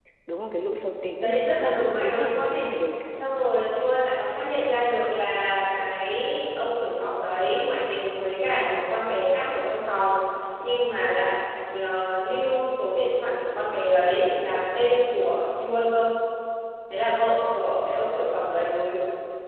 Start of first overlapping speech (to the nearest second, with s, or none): 1 s